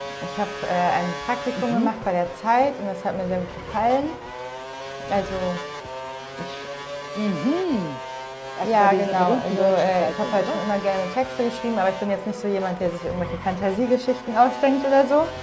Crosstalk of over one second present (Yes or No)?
Yes